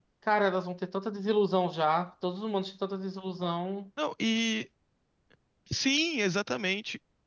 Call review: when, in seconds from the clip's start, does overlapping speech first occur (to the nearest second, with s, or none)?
none